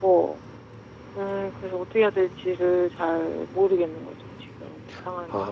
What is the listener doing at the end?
taking over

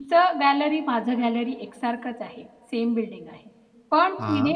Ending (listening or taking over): listening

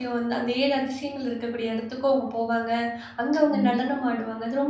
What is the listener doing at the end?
listening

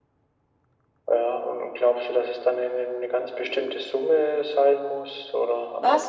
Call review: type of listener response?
taking over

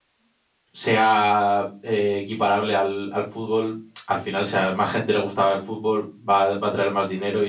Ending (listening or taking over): taking over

